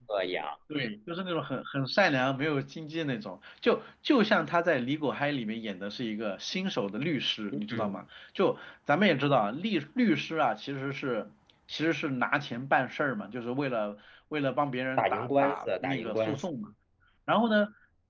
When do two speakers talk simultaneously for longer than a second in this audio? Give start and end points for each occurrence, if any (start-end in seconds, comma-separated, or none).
15.0-16.5